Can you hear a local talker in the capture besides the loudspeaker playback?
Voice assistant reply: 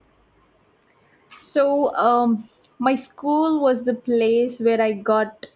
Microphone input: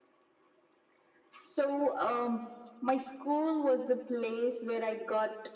No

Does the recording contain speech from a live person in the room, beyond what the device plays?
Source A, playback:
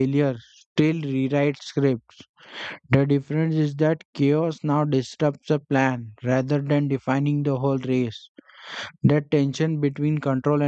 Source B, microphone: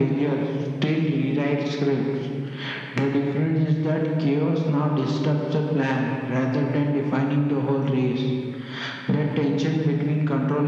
No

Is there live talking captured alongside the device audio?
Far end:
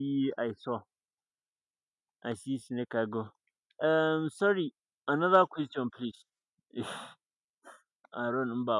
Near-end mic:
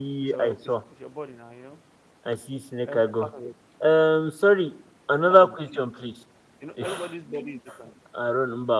Yes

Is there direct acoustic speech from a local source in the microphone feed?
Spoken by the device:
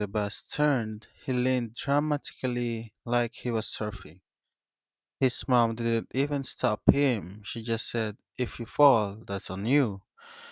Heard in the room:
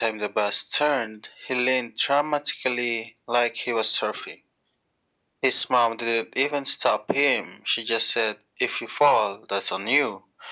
No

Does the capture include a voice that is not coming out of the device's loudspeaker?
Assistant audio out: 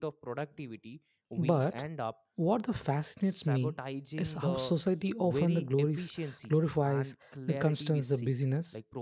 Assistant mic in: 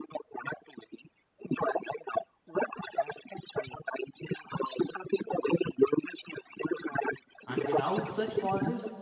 Yes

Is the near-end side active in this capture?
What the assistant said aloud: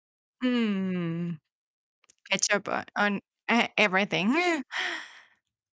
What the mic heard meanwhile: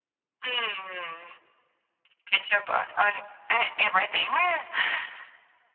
No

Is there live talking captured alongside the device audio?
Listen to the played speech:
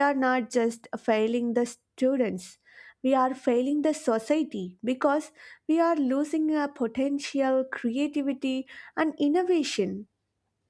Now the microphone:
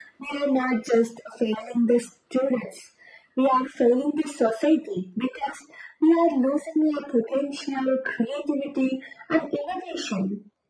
No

